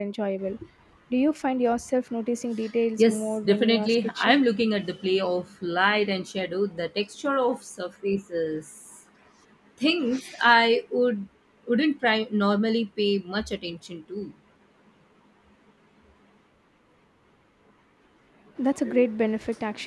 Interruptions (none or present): present